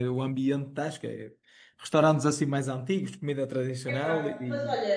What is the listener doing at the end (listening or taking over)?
taking over